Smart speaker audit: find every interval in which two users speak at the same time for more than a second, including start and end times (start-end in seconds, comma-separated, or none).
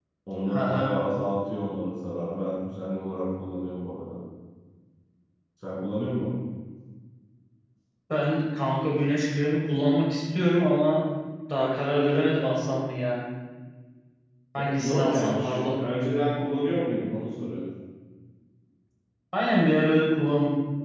14.6-15.8